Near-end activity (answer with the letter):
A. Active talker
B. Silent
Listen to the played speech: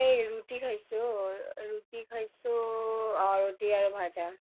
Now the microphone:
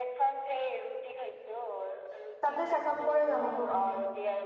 A